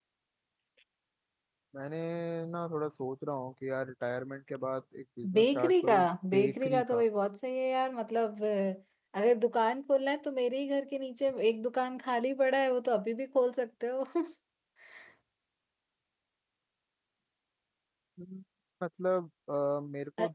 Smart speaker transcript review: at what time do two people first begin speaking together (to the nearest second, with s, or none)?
5 s